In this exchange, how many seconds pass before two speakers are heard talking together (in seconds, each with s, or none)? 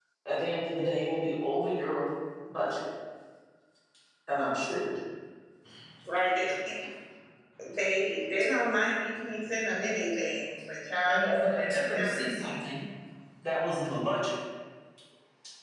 11.1 s